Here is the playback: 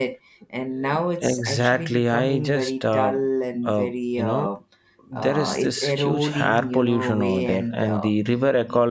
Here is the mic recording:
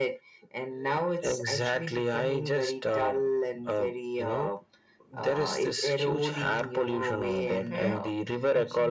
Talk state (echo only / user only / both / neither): both